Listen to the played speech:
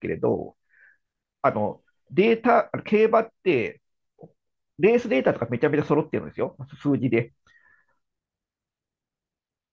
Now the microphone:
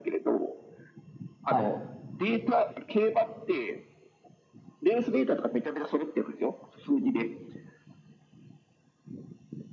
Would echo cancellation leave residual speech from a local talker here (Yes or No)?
Yes